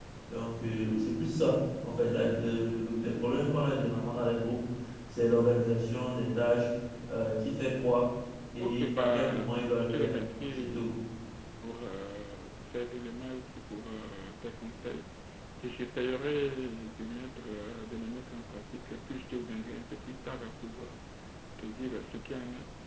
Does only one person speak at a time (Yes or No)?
No